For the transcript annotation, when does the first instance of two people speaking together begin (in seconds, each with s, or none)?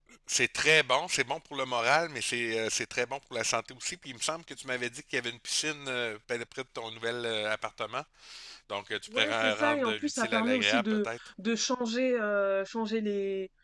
9.2 s